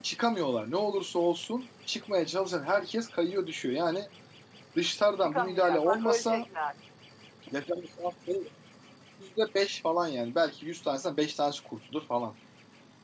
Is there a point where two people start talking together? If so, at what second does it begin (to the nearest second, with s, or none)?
5 s